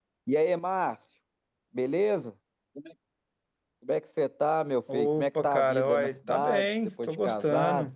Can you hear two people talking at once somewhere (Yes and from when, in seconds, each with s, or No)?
Yes, from 4.9 s